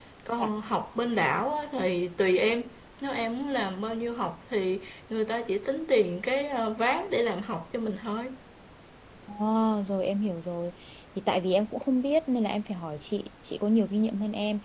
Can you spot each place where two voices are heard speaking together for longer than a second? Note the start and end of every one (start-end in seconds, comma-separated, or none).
none